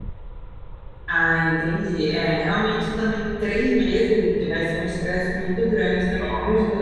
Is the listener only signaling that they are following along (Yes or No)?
Yes